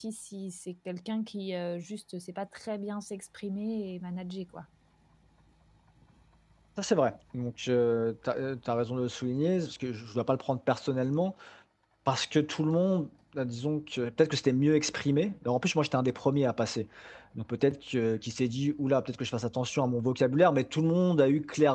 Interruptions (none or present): none